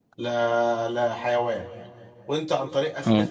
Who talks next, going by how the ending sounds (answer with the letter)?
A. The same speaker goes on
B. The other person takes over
A